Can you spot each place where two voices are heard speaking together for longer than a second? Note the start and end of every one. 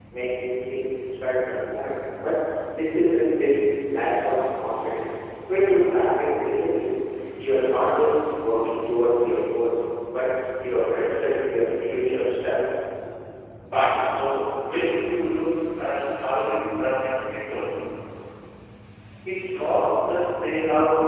none

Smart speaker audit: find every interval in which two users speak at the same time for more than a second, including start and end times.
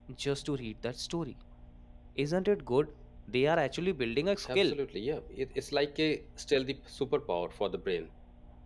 none

